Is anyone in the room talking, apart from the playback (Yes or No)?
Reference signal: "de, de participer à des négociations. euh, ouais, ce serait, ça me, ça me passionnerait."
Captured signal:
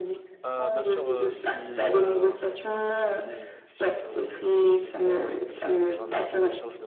Yes